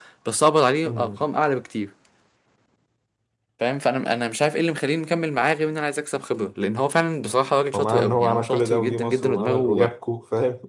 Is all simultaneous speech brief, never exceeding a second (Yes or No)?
No